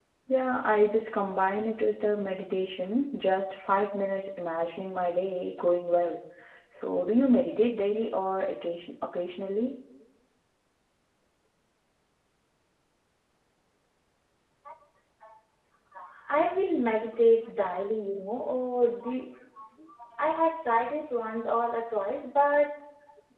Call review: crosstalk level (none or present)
none